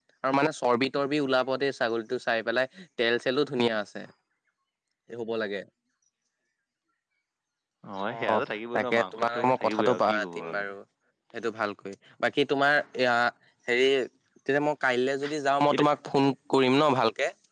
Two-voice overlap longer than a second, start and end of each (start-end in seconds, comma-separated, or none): 8.7-10.6